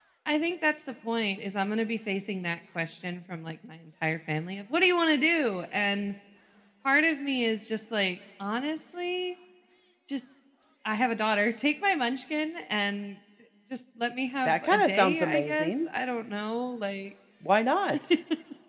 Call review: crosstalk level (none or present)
present